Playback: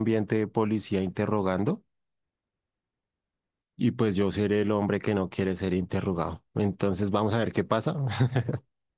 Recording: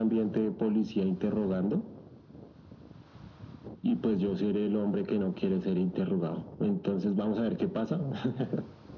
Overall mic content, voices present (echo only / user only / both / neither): echo only